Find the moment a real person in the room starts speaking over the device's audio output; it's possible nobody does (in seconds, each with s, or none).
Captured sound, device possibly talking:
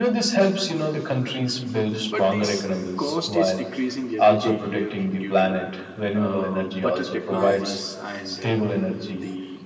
2.1 s